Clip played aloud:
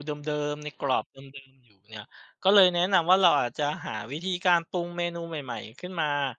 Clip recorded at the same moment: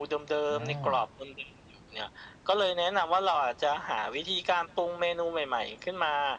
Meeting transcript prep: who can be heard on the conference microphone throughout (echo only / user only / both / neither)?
both